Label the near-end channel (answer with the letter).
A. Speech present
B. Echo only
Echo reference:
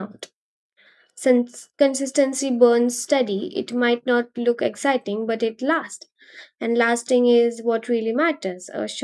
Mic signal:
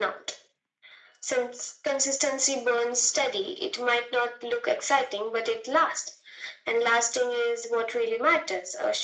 B